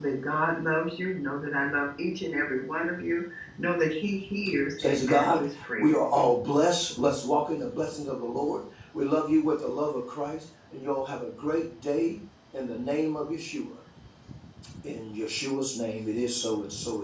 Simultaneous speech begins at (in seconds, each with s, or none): 4.8 s